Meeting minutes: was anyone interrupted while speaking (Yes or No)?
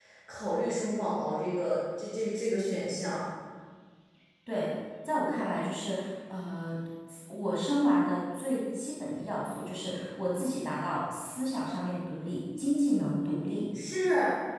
No